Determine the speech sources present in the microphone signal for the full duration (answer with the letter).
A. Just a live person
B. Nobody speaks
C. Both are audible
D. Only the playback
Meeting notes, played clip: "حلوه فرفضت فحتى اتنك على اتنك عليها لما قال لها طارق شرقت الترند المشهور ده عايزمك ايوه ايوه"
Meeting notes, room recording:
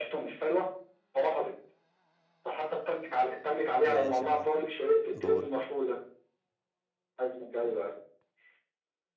C